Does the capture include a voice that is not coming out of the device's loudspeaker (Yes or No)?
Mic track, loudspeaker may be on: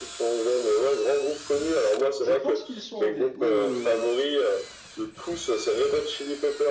Yes